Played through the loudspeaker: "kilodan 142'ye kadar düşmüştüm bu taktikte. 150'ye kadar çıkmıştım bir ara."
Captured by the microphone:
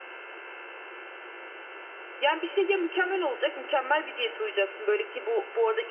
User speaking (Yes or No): Yes